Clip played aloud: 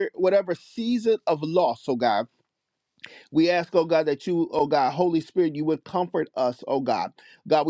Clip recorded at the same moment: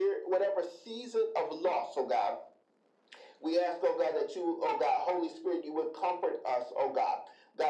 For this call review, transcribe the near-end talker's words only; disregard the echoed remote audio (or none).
none